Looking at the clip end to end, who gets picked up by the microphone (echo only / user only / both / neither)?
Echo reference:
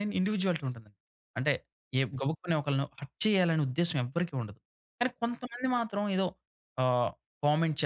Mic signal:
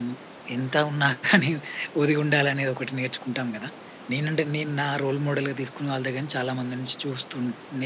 user only